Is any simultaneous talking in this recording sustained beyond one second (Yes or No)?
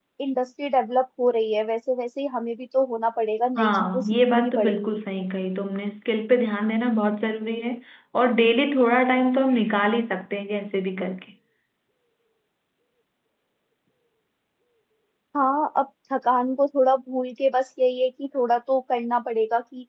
Yes